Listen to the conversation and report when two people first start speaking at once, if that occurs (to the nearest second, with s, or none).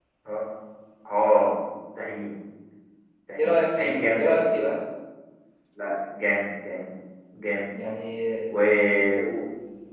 3 s